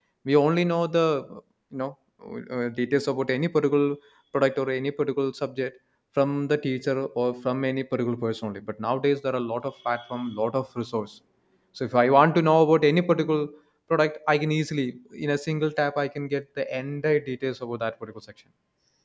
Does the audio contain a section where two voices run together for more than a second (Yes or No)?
No